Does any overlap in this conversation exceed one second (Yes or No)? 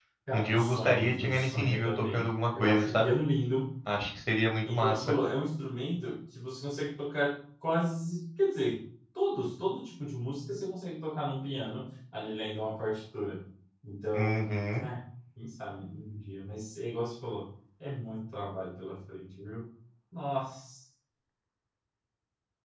Yes